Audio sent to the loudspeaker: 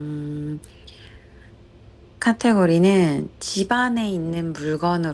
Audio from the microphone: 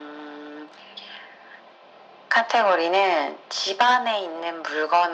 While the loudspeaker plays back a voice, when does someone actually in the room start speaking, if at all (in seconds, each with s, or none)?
none